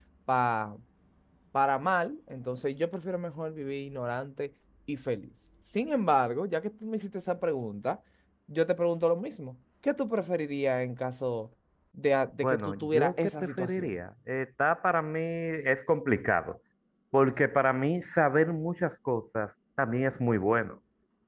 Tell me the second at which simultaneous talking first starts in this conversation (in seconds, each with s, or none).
12.4 s